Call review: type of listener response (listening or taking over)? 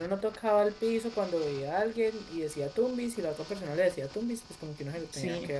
listening